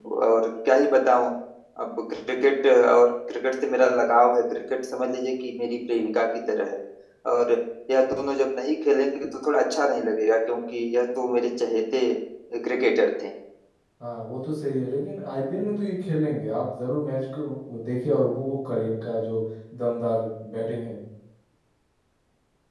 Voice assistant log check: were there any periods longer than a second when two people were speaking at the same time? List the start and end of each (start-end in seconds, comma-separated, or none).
none